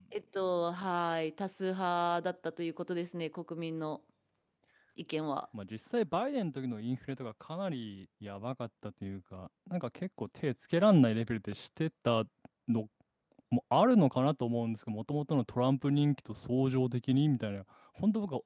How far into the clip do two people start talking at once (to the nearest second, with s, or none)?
none